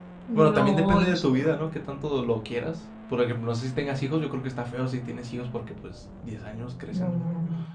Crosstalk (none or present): present